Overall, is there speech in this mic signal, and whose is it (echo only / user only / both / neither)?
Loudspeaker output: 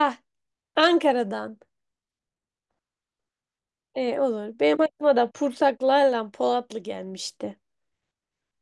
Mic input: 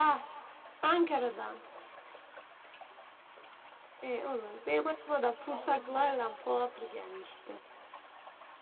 both